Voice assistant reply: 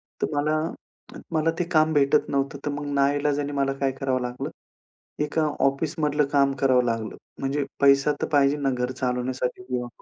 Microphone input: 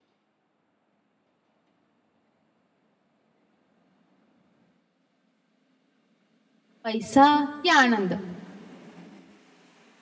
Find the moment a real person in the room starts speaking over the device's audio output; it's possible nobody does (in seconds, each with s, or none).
6.8 s